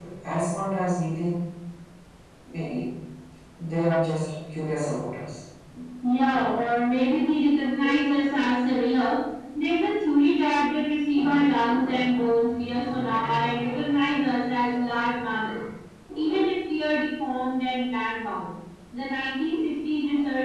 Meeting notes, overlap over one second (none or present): none